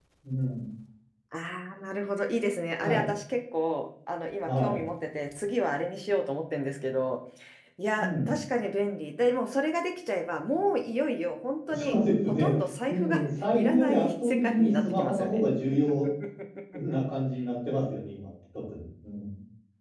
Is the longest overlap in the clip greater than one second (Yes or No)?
Yes